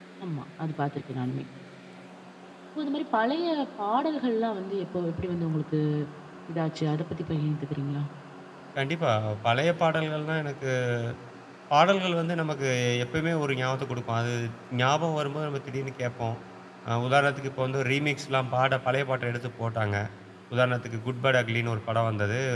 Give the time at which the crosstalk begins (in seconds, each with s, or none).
none